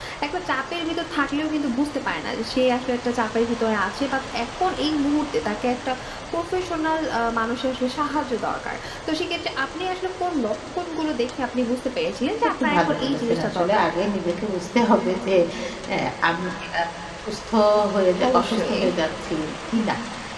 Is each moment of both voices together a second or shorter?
No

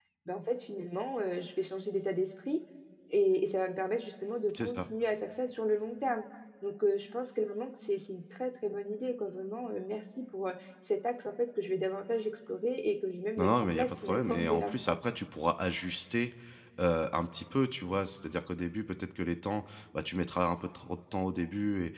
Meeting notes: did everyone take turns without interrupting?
No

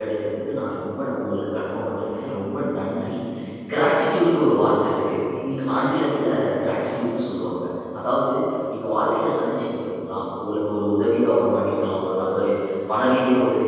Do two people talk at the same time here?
No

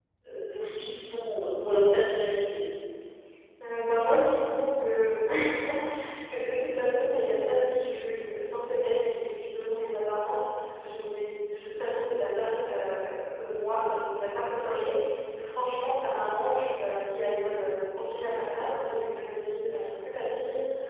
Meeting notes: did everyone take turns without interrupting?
Yes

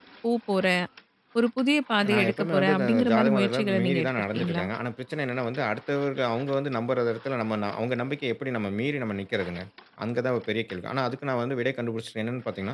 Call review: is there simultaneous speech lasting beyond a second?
Yes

